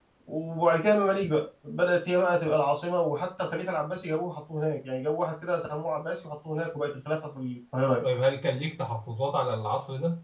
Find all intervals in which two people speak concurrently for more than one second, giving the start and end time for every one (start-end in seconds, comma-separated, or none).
none